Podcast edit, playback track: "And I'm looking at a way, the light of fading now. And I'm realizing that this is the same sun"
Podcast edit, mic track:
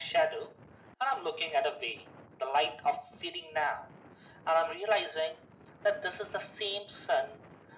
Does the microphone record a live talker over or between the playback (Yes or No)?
No